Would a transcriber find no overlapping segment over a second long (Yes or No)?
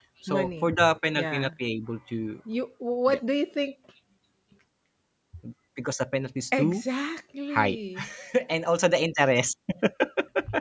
Yes